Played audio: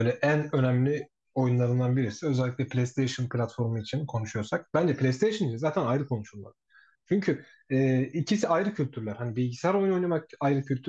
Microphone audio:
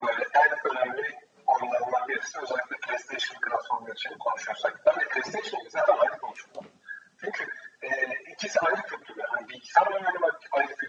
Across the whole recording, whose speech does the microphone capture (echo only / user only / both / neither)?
echo only